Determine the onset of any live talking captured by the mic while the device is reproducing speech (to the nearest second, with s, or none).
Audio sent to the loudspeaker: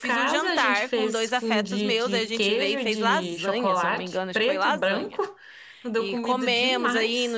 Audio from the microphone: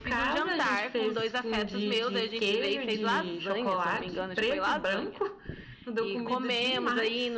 none